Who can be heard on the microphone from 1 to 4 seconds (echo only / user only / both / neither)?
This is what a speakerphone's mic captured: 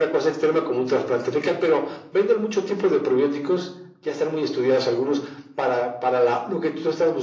echo only